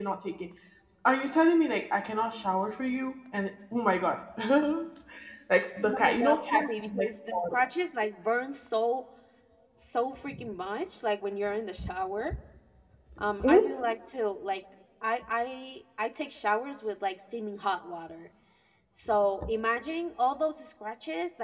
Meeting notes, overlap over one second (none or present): present